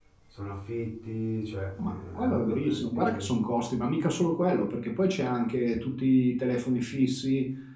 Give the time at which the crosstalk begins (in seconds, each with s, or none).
1.8 s